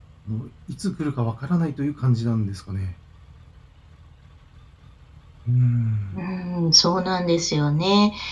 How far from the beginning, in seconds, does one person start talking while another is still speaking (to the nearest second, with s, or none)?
none